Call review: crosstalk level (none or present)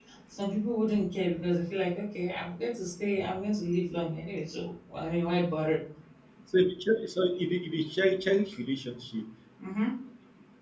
none